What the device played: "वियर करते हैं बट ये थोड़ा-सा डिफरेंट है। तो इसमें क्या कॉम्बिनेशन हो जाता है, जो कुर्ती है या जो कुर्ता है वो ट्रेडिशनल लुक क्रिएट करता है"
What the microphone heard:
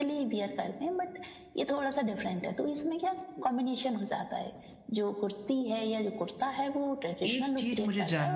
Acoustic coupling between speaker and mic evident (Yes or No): Yes